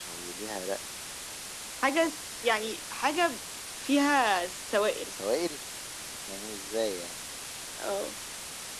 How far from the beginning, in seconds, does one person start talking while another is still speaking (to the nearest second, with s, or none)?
none